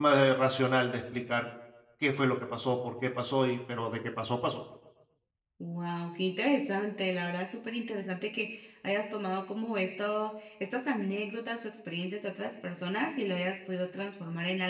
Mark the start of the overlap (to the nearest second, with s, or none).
none